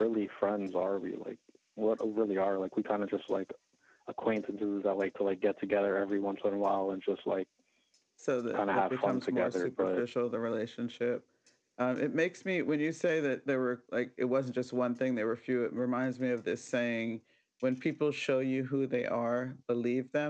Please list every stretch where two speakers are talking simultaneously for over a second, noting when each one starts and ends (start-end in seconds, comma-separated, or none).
8.6-10.0